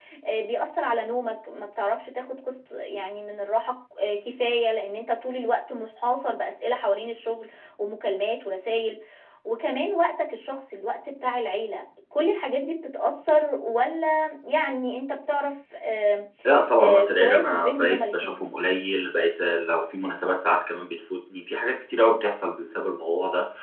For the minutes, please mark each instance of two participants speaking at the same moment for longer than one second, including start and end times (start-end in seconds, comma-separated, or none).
16.8-18.4